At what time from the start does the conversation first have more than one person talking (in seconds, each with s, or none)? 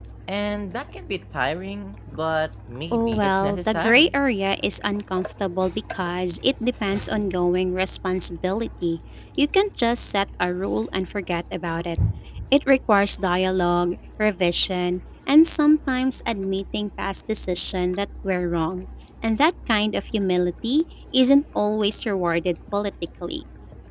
2.9 s